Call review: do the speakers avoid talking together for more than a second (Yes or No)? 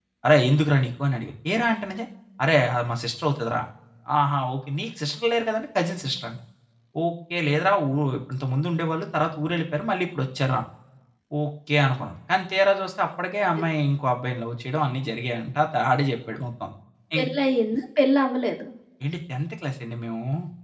Yes